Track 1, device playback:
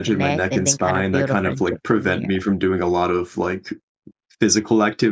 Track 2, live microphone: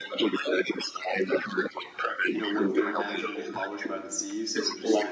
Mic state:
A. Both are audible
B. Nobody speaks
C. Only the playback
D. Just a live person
A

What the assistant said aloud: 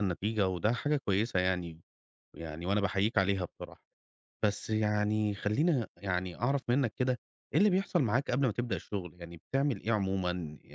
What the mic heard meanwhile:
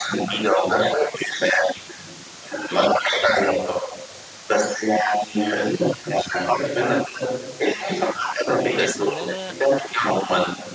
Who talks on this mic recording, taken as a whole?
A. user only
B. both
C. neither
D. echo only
B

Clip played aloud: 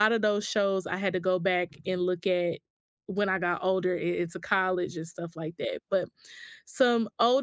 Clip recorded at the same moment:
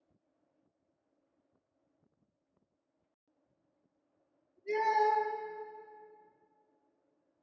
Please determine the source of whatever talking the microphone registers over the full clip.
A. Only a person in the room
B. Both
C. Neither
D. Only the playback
A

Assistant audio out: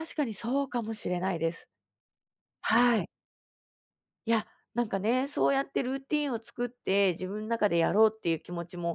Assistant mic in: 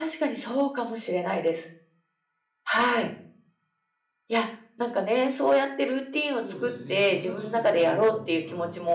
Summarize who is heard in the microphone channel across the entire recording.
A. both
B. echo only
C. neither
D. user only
A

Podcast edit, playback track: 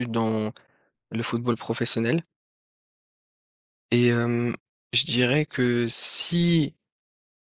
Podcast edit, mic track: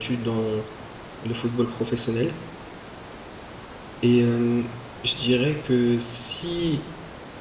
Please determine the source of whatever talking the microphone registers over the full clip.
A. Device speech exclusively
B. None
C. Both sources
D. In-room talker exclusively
A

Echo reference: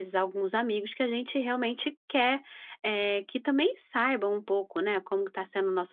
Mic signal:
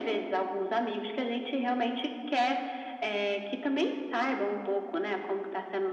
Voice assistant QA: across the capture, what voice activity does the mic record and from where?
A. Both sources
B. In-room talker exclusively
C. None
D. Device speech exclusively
D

